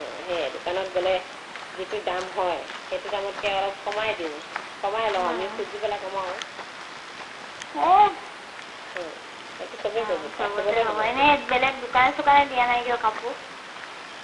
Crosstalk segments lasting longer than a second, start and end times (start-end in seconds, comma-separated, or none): 10.0-11.2